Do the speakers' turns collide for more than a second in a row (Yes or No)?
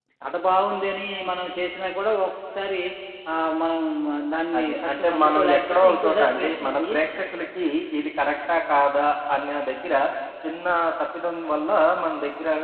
Yes